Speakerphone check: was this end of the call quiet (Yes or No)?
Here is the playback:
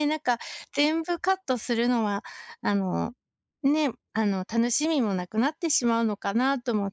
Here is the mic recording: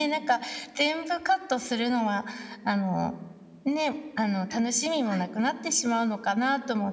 No